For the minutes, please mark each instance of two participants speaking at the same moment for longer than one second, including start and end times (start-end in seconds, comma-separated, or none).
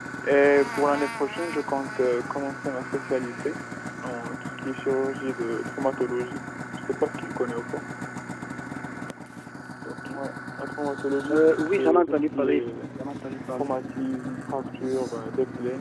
11.3-12.8